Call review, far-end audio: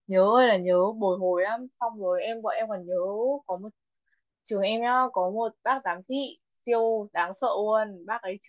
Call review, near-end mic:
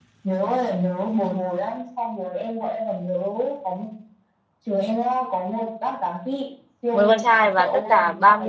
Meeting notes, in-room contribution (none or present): present